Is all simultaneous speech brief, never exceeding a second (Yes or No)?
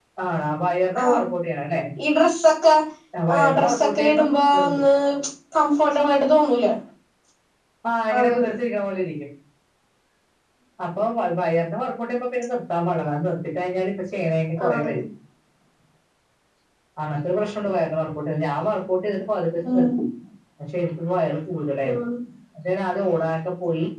No